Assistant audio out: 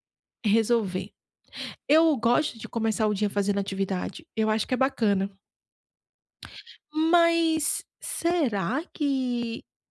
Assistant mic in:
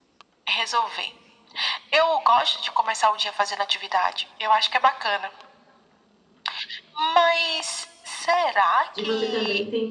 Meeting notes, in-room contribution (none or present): present